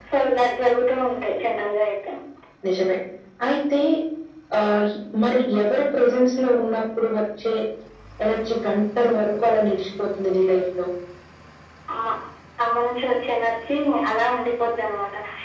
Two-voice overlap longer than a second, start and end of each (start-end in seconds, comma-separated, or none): none